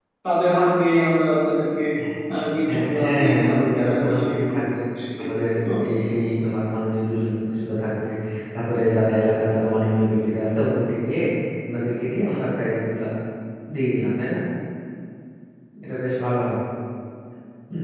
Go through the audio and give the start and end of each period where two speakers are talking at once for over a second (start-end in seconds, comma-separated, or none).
2.7-4.6